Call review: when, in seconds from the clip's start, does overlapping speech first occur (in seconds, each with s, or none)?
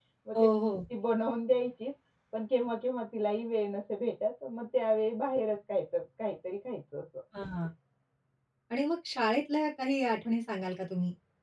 none